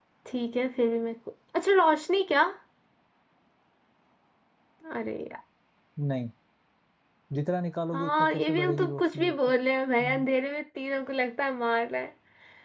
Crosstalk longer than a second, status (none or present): present